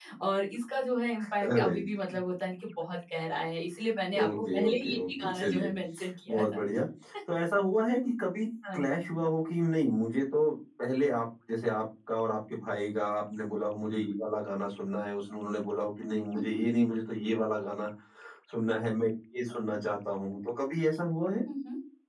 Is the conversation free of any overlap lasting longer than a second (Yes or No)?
No